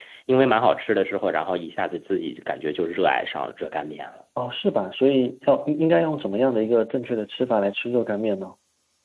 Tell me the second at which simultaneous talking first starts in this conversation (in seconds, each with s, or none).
none